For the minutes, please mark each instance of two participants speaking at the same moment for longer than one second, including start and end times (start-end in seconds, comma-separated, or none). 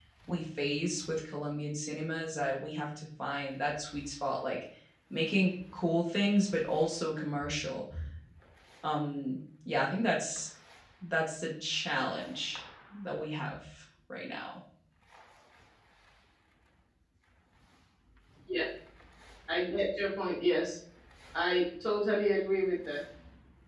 none